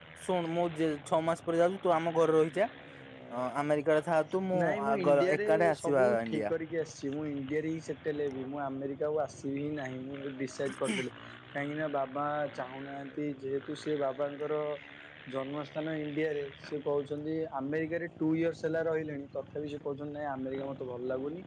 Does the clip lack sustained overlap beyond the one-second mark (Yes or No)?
No